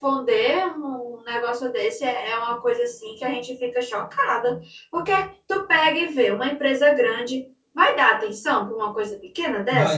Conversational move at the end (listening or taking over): taking over